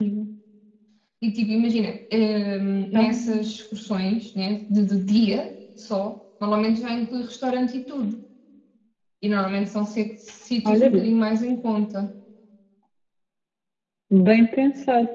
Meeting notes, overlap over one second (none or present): none